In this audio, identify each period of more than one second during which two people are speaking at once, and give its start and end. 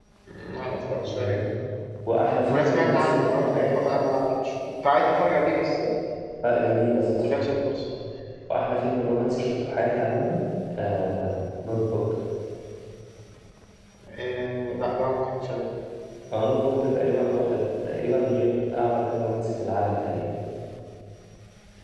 2.5-3.8

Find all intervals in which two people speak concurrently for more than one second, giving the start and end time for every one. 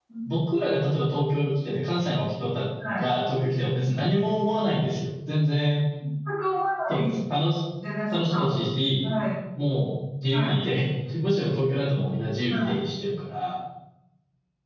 none

